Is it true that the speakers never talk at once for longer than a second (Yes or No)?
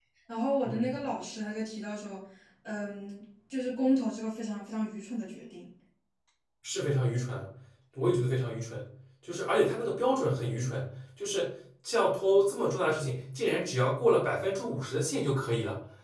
Yes